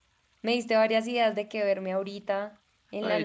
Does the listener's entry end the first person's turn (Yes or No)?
Yes